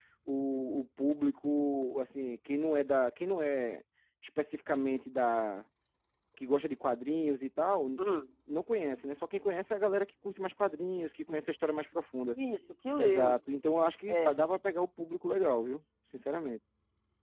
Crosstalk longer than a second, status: none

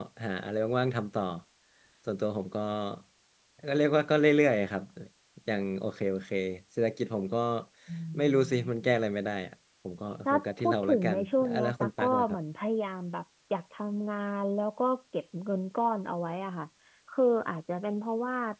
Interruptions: present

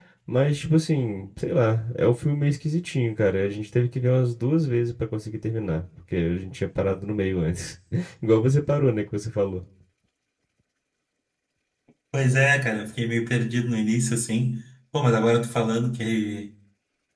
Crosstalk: none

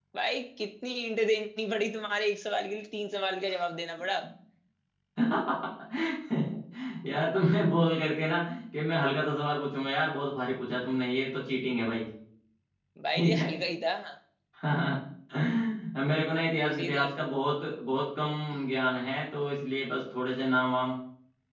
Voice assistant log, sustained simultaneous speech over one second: none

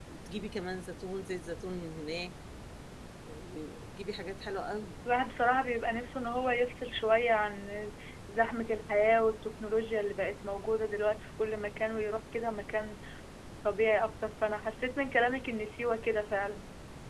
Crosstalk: none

